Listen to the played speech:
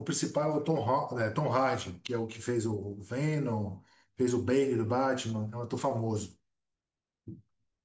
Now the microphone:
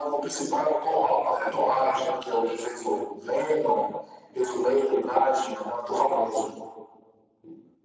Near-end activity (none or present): none